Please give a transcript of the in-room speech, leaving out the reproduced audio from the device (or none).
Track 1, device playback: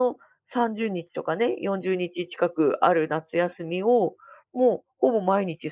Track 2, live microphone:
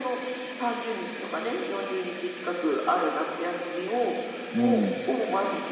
うん。